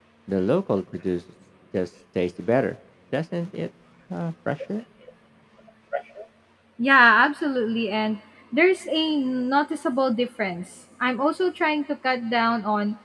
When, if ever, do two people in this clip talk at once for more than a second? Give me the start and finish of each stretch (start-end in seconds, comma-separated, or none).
none